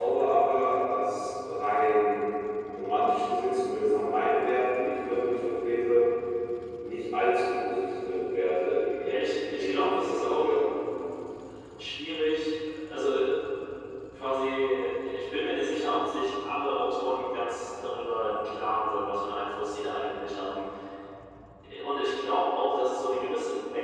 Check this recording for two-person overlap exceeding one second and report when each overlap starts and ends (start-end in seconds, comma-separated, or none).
9.0-10.6